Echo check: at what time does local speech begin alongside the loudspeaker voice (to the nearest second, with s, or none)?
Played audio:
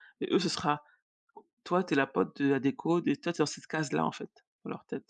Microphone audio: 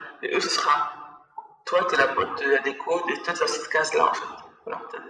none